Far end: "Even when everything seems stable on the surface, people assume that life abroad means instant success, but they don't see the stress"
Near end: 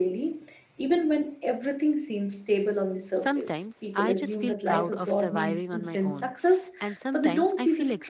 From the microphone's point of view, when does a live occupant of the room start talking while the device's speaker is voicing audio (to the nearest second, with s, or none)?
3 s